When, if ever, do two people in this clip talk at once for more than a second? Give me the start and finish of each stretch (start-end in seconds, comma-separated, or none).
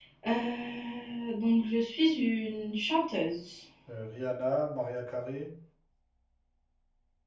none